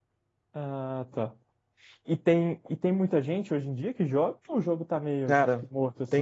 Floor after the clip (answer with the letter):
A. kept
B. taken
B